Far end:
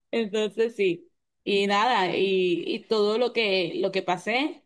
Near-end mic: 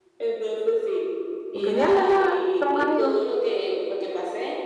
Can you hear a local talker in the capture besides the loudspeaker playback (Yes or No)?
Yes